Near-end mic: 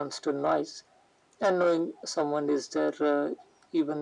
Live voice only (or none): none